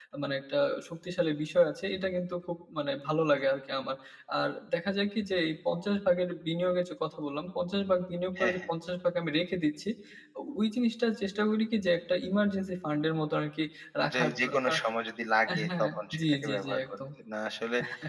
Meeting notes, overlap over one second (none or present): present